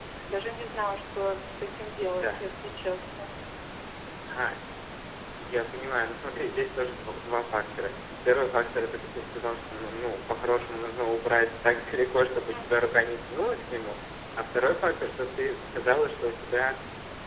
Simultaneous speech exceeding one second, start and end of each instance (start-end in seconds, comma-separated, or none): none